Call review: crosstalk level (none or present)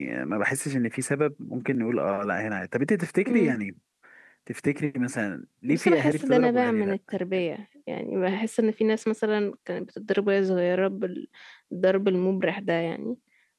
present